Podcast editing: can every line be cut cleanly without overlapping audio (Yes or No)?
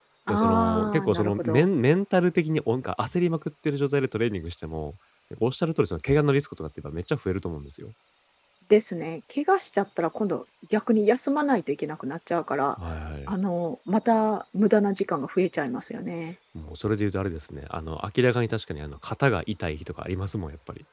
No